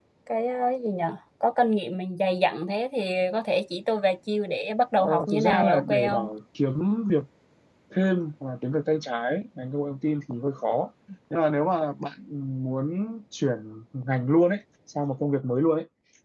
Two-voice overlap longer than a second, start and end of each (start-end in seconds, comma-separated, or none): 5.0-6.3